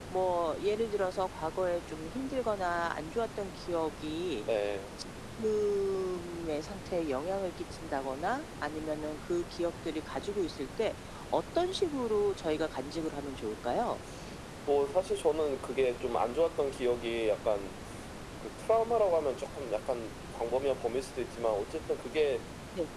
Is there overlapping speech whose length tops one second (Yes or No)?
No